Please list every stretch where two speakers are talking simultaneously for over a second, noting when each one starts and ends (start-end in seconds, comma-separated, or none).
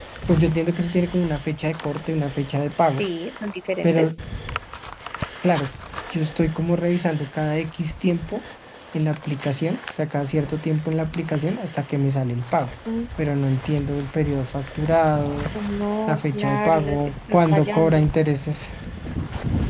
16.1-18.1